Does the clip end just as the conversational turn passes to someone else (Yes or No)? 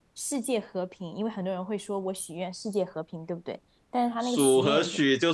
Yes